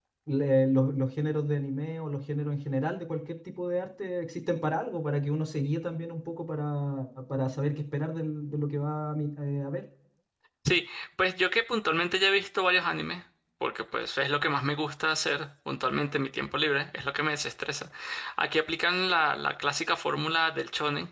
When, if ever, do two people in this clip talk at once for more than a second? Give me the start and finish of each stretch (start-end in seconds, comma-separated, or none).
none